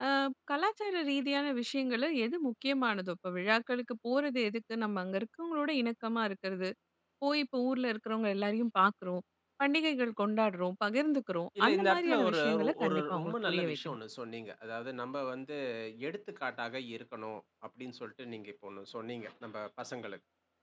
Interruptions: present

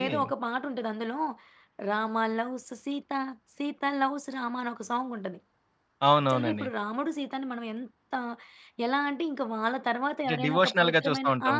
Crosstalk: present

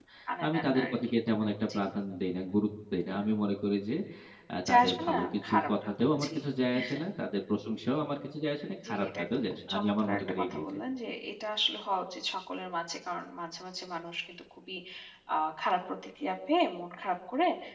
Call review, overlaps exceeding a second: present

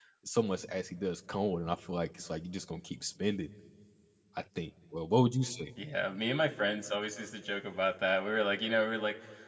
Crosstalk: none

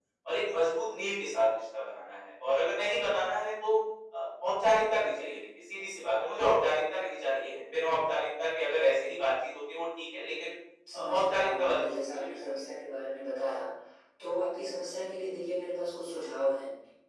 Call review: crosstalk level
present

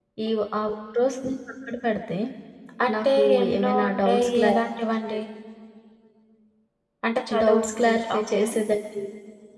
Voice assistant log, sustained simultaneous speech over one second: present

